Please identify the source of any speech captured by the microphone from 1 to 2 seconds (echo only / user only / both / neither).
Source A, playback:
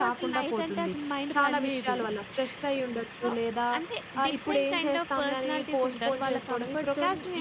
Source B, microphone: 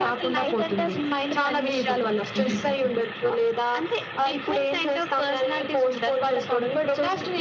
echo only